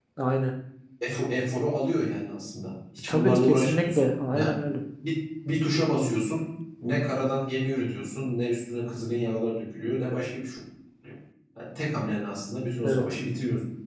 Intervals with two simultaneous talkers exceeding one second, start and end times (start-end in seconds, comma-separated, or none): 3.1-4.5